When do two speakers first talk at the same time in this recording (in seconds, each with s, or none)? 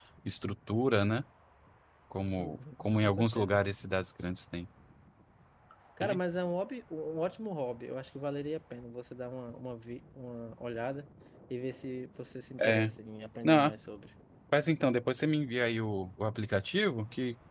2.4 s